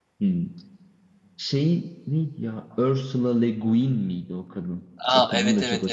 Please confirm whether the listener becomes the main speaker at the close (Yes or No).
Yes